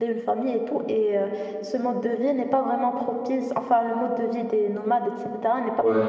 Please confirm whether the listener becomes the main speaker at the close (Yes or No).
No